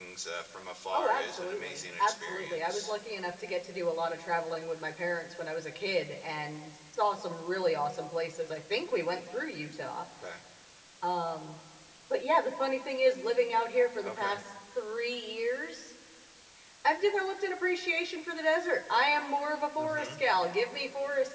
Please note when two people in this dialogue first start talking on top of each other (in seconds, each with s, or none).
0.9 s